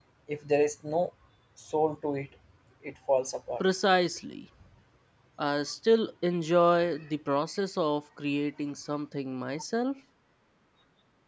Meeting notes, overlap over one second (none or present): none